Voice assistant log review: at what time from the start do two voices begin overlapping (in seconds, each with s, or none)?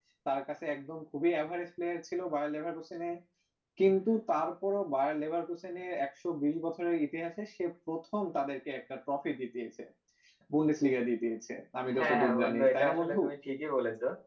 12.0 s